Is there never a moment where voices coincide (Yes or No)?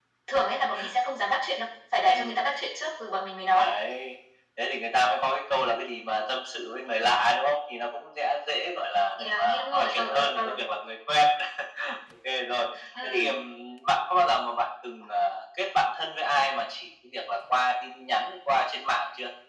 No